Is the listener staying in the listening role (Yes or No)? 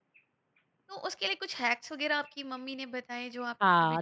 No